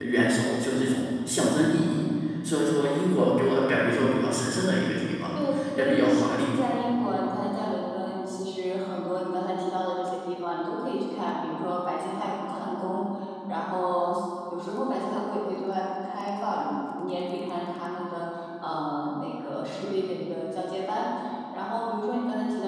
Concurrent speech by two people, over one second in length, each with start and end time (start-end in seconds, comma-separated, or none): 5.3-6.6